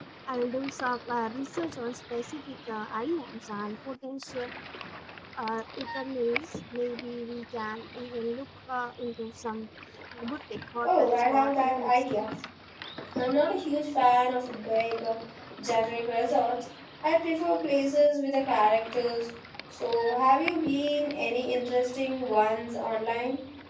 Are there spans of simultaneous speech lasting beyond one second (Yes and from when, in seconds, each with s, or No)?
Yes, from 10.8 s